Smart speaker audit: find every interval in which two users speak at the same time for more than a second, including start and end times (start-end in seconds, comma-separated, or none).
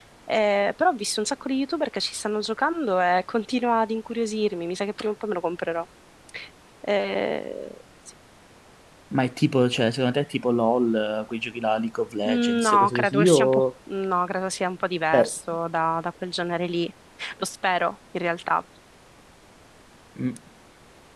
12.2-13.6